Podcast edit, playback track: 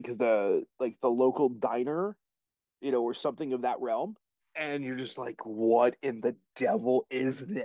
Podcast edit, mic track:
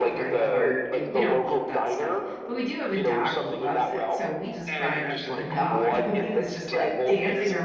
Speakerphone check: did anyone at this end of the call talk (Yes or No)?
Yes